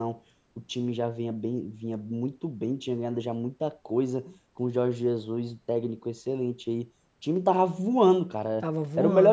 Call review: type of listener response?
listening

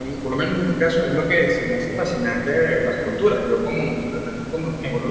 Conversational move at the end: listening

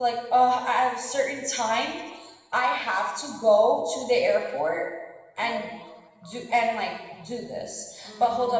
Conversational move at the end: listening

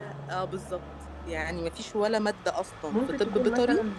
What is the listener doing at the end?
taking over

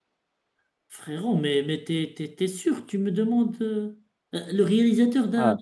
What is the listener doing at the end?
taking over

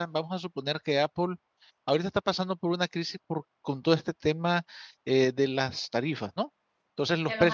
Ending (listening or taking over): listening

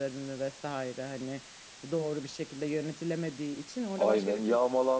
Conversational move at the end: taking over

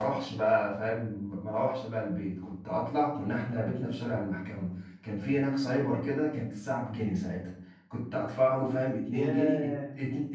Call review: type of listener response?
listening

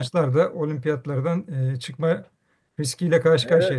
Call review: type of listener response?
taking over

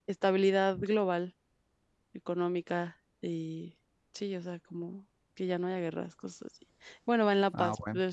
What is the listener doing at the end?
listening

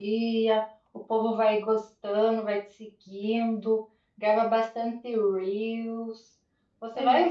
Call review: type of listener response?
listening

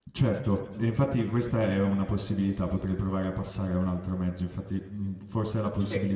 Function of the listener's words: listening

